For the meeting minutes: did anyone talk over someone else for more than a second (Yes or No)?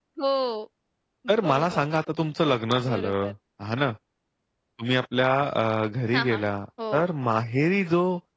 No